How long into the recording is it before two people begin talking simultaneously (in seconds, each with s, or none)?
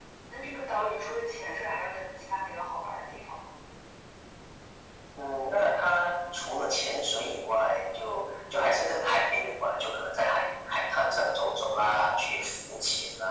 none